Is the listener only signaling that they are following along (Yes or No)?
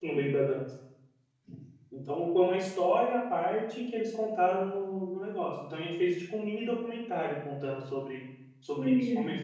Yes